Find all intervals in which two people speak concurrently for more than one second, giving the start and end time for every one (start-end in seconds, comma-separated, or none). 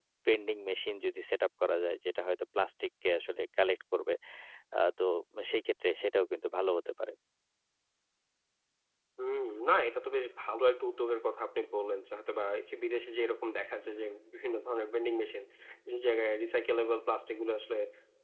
none